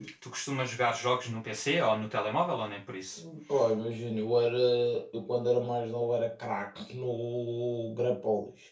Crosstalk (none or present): none